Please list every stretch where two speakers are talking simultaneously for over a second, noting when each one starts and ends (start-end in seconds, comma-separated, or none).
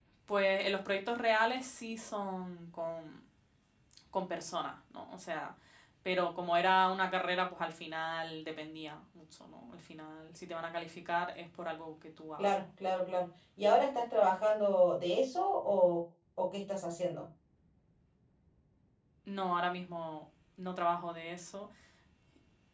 none